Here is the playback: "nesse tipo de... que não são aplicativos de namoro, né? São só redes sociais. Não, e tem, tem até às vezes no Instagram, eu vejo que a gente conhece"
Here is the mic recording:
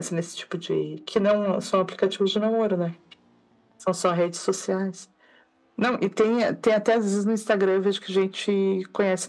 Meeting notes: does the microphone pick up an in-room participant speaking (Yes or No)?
No